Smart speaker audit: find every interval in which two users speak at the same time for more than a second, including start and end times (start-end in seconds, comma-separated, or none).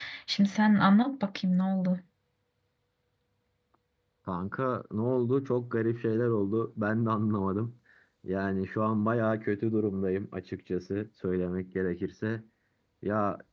none